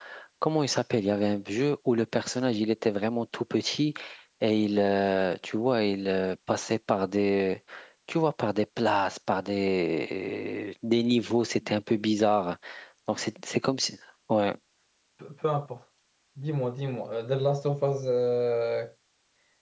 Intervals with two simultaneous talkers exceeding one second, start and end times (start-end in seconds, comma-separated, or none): none